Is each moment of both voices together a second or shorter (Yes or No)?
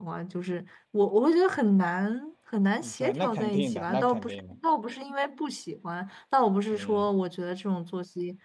No